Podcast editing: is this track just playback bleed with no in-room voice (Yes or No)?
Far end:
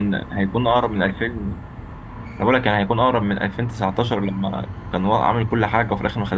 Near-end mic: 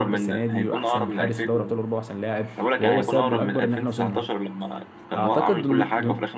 No